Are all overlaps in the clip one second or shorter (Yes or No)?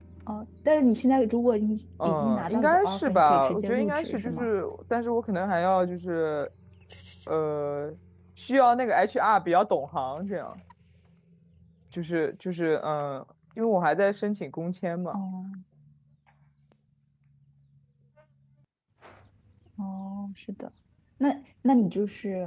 No